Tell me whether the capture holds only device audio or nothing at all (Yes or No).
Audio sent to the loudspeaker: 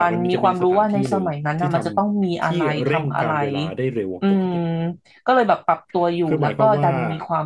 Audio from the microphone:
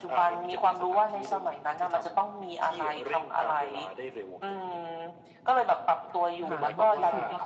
No